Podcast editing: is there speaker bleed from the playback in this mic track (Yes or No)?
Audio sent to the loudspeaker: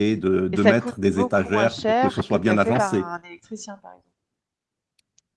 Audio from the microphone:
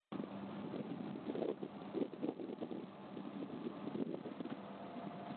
No